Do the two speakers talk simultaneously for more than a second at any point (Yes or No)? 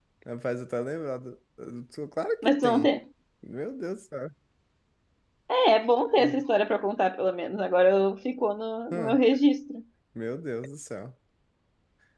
No